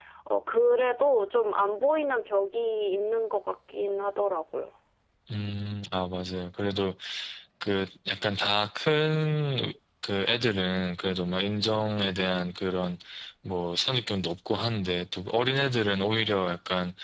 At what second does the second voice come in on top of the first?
none

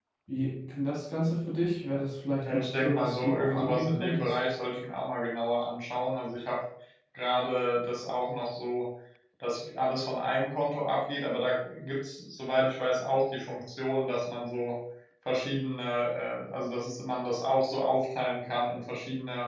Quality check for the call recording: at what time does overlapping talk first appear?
2.4 s

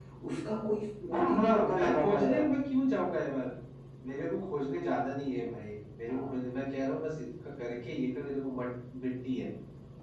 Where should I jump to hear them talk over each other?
1.1 s

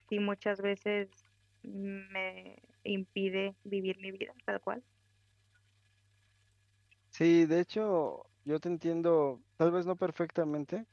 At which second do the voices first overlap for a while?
none

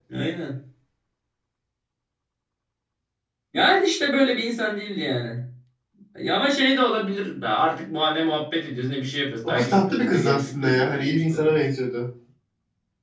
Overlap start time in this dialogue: 9.4 s

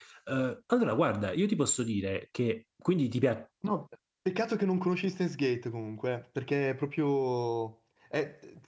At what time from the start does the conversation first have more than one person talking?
none

